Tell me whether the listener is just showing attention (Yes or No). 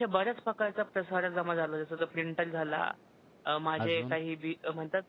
Yes